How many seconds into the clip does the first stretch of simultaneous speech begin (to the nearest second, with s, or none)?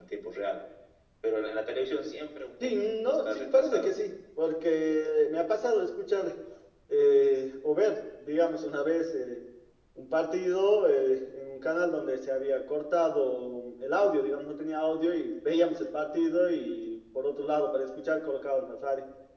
3 s